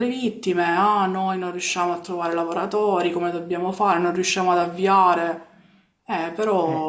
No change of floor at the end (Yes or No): No